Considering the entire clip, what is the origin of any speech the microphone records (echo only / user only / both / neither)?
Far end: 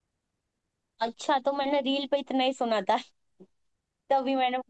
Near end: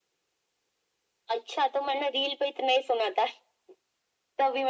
echo only